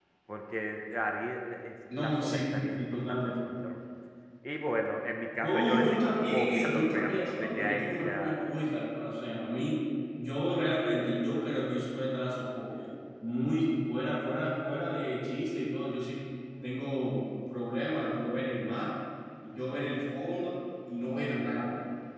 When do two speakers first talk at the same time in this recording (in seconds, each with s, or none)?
1.9 s